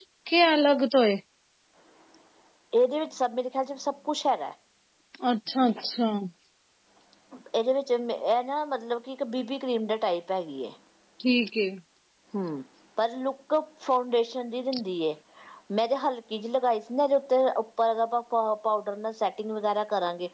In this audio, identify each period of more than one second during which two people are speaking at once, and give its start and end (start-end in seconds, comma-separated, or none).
none